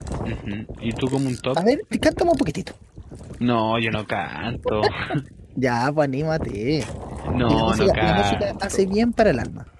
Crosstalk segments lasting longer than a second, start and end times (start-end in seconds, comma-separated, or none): 7.5-8.9